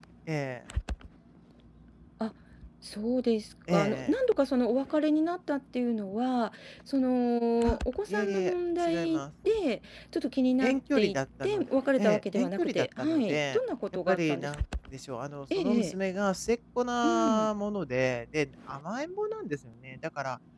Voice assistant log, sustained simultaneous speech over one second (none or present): present